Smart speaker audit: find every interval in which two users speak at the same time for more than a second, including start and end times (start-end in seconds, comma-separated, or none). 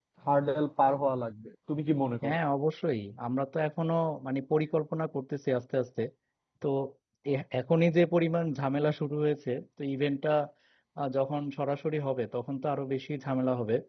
none